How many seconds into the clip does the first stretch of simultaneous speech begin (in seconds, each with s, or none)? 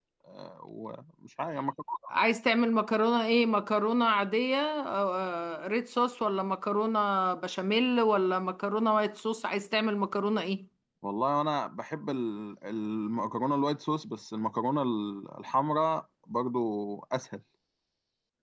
none